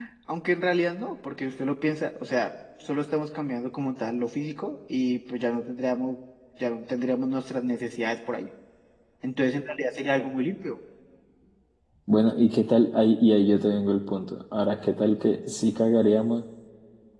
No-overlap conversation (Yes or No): Yes